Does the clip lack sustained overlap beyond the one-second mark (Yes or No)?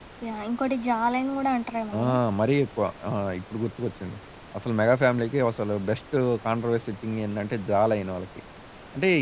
Yes